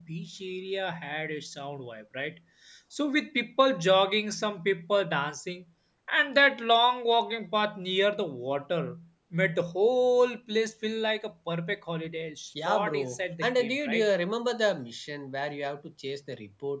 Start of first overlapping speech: 12.6 s

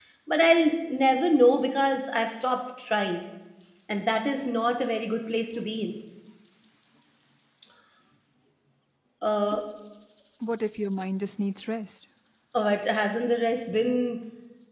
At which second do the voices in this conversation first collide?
none

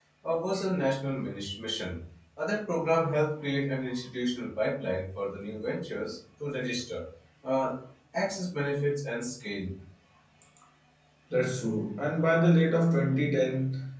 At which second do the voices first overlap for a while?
none

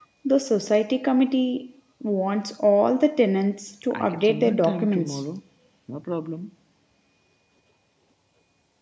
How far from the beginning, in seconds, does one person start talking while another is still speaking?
3.9 s

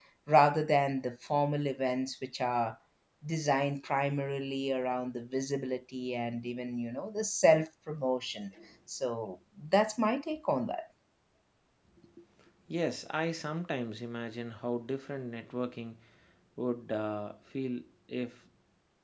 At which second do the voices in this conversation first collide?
none

